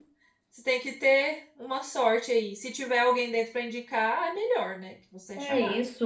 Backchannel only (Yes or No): No